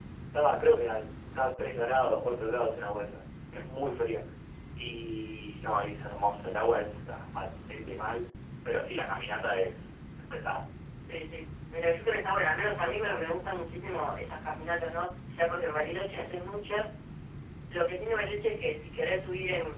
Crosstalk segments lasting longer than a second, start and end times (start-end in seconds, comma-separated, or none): none